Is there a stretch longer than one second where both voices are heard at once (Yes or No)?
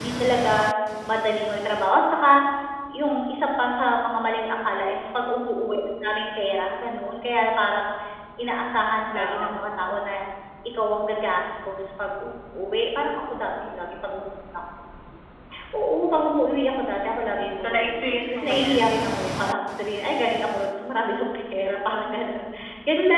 Yes